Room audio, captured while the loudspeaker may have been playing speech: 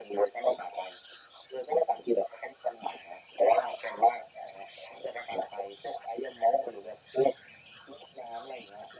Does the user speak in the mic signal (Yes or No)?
No